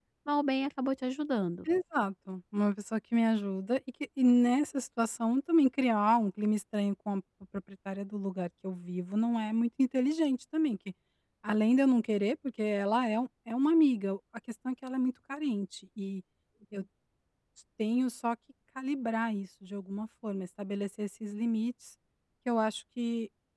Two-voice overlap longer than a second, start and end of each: none

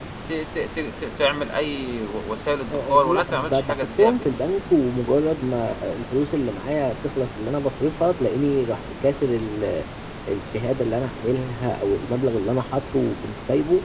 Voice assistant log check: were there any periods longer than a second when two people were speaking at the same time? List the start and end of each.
2.7-4.3

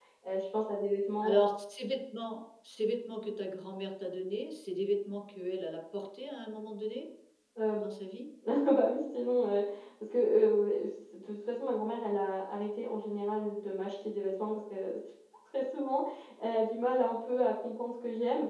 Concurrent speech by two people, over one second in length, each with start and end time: none

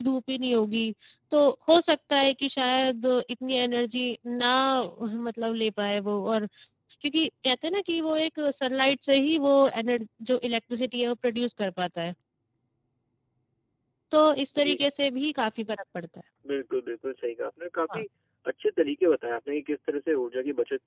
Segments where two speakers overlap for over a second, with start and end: none

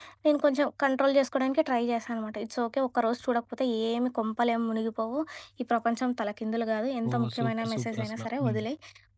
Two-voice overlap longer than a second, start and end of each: 7.1-8.6

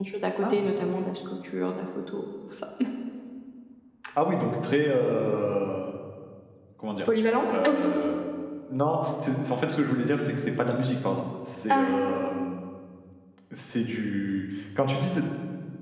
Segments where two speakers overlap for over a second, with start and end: none

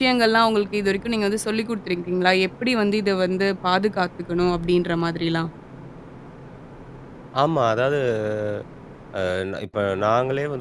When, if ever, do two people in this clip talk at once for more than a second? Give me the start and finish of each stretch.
none

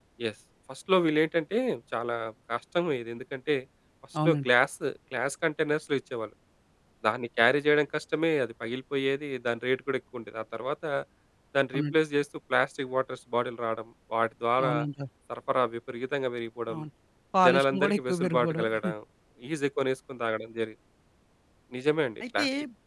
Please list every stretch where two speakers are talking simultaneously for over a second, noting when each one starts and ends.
17.4-18.7

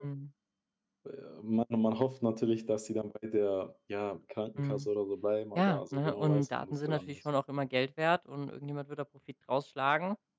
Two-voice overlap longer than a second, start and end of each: 5.6-7.2

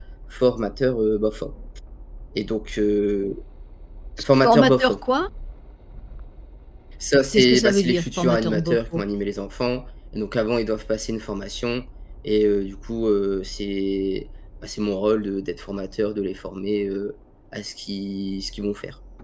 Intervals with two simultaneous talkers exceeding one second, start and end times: 7.3-9.0

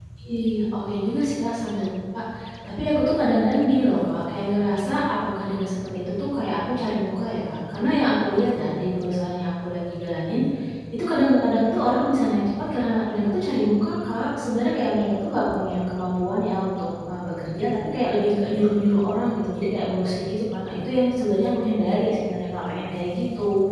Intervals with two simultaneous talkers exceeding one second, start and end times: none

